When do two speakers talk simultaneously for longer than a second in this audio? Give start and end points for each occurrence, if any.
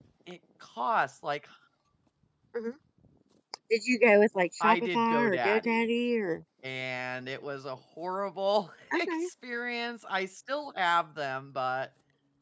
4.6-5.9

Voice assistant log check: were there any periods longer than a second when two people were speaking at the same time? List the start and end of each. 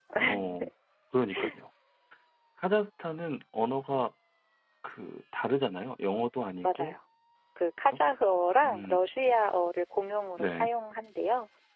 none

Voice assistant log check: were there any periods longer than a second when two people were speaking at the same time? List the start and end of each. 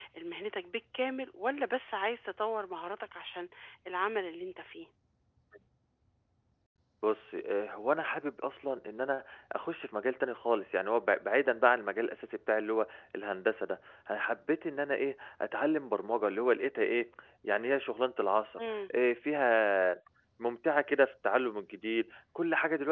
none

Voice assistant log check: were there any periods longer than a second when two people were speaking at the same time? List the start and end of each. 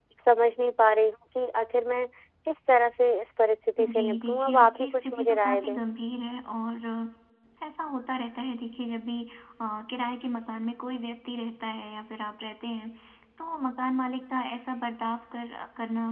3.8-5.8

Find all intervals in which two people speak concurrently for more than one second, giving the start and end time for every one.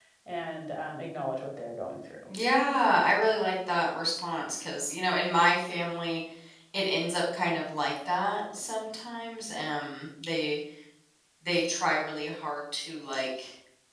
none

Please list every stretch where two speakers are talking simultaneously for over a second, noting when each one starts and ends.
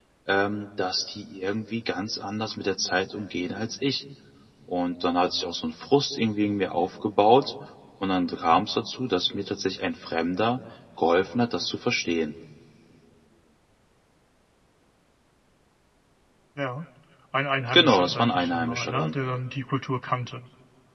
17.7-19.1

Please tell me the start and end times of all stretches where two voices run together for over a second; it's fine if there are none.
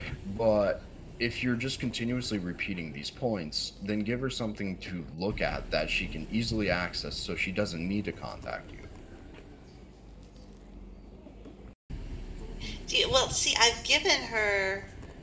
none

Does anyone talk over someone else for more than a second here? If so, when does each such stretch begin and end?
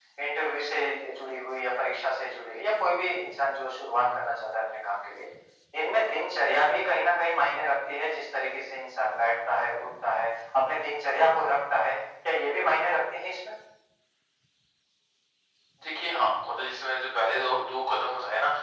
none

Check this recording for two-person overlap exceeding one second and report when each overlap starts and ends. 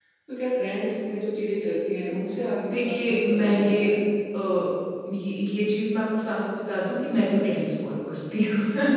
2.6-3.9

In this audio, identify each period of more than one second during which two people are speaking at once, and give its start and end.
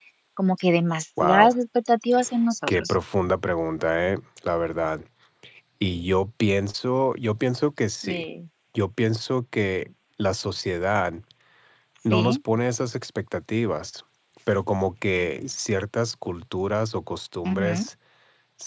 none

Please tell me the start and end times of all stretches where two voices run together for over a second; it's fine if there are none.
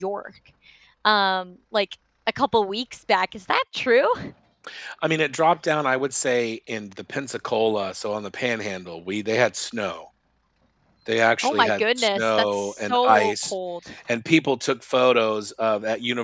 11.4-13.5

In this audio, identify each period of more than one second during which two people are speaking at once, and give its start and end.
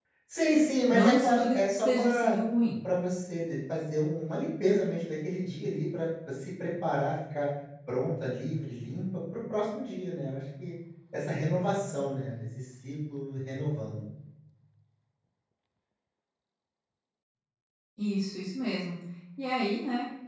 0.9-2.4

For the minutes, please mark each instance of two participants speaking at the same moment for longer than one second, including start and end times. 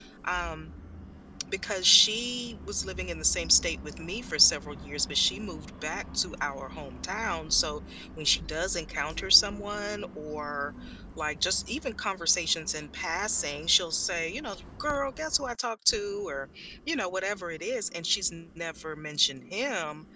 none

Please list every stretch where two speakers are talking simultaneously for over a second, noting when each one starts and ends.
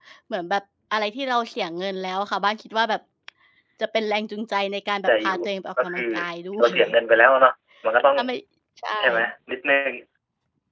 none

